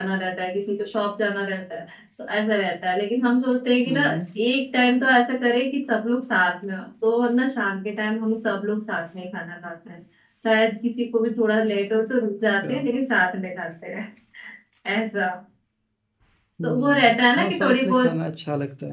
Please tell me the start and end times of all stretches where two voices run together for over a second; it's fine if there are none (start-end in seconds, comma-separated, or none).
16.6-18.2